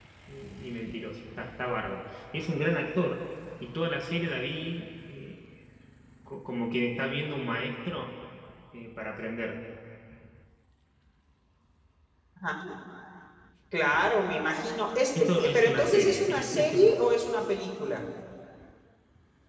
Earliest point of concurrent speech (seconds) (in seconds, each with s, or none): 15.2 s